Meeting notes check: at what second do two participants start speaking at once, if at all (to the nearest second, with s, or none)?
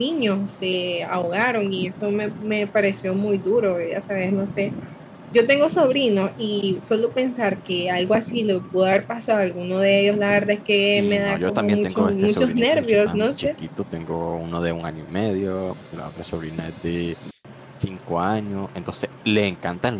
11 s